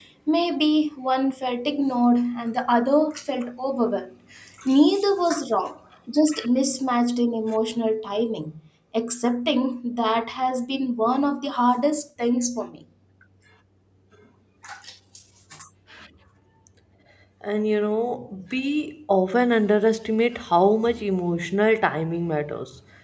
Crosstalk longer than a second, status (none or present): none